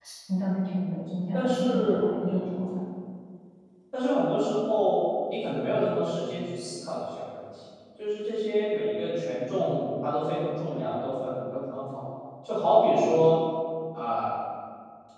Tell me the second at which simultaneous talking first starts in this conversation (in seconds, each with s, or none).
1.3 s